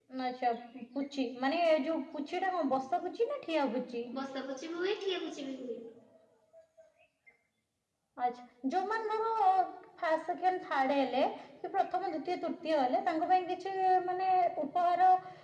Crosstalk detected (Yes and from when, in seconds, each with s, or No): No